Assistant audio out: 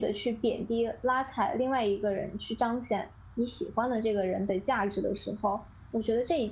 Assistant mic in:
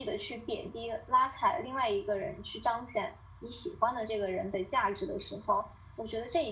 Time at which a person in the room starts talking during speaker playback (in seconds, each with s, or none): none